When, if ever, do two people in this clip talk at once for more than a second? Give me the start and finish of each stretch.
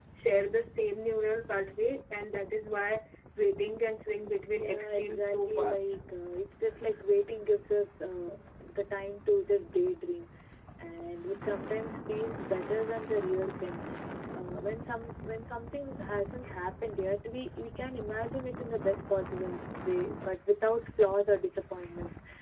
4.5-5.9

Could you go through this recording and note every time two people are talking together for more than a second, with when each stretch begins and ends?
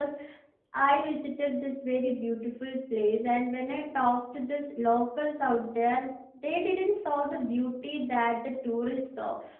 none

